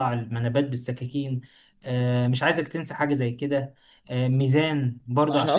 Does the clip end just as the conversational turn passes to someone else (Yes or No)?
Yes